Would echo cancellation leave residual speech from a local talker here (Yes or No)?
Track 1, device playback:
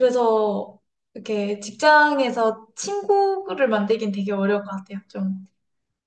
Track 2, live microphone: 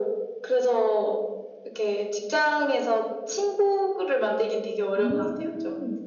Yes